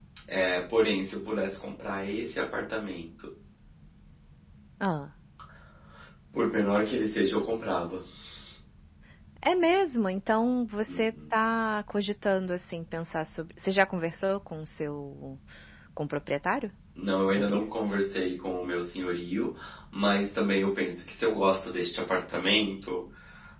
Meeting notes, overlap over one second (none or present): none